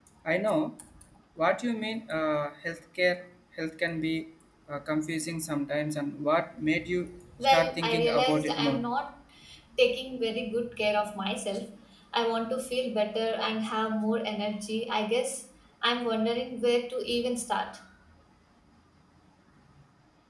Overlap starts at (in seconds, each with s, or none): 7.4 s